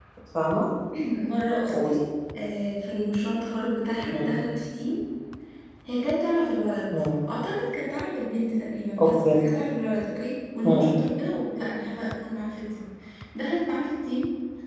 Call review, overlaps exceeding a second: none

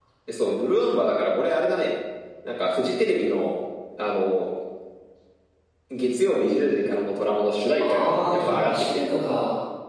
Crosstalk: present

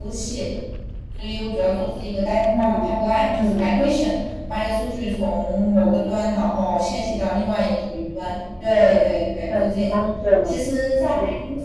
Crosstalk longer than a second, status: none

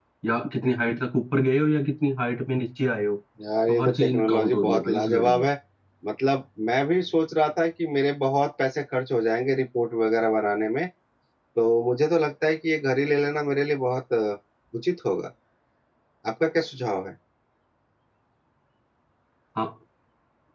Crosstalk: present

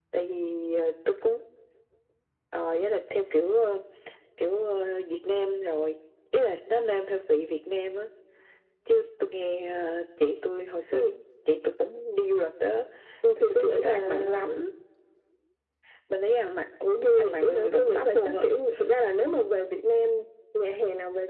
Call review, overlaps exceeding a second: present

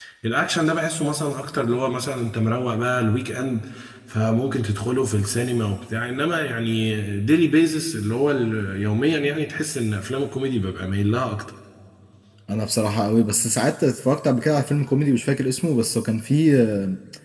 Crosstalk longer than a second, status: none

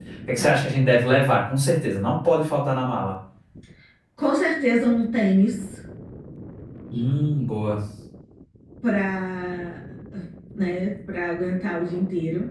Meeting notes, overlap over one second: none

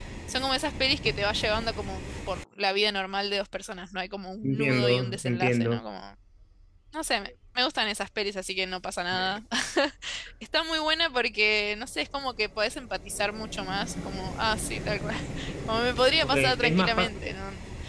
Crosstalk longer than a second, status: present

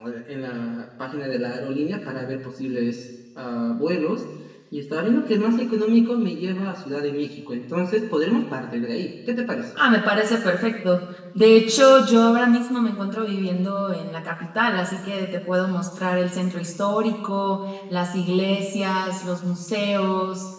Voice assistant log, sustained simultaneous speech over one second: none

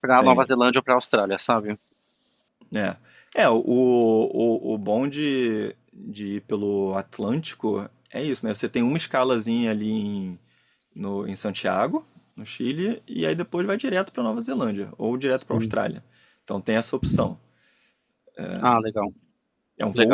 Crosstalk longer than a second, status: none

